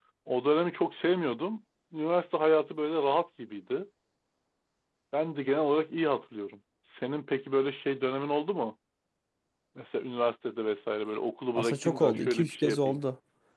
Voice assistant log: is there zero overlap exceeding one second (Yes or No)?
No